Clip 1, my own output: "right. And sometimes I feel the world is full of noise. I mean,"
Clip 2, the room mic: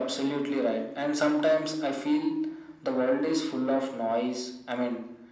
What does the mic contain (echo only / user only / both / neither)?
echo only